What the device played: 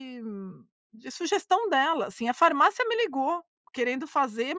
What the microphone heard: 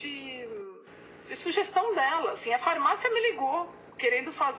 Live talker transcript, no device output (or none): none